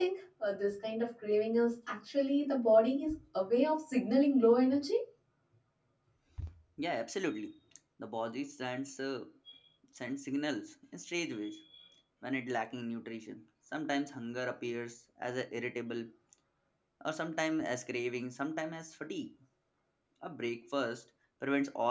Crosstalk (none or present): none